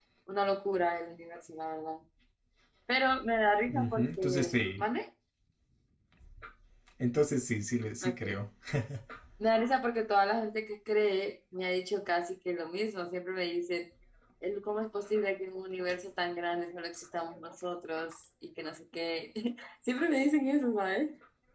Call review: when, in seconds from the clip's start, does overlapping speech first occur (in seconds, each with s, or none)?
3.7 s